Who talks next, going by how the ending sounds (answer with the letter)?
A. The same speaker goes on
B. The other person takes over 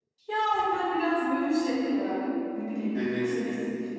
A